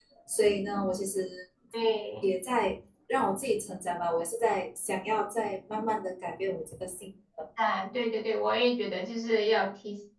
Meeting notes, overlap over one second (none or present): none